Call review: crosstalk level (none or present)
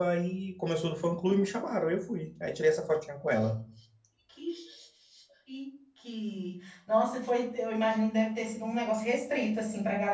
none